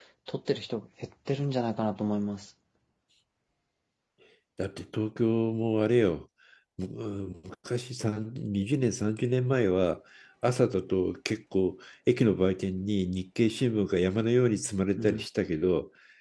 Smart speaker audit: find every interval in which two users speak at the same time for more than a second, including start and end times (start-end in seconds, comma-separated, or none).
none